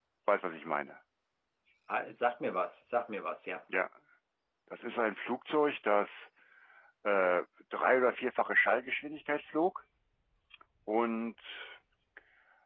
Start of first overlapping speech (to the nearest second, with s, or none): none